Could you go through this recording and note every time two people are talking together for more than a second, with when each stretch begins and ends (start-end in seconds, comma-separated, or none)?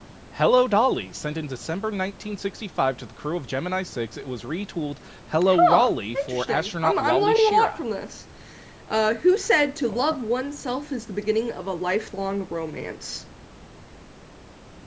5.5-7.8